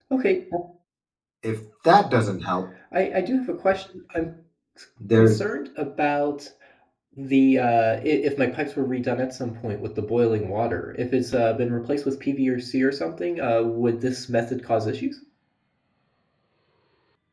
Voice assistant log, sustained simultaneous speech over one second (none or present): none